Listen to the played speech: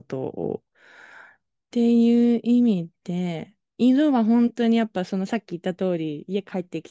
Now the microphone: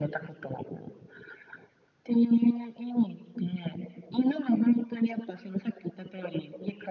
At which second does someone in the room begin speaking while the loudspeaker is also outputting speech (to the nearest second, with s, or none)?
none